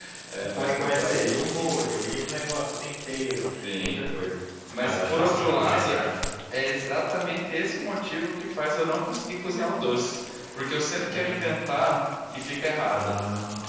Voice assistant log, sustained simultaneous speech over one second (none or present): present